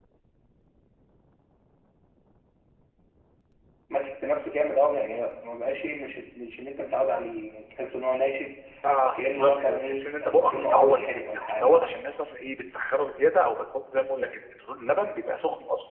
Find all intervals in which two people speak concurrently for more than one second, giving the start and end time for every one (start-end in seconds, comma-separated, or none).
9.0-11.9